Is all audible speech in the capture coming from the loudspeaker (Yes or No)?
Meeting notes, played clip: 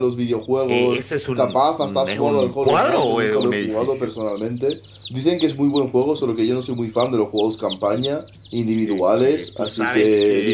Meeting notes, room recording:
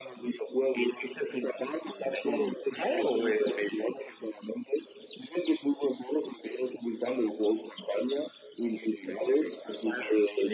Yes